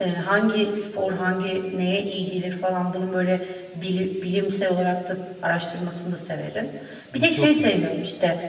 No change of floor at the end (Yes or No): Yes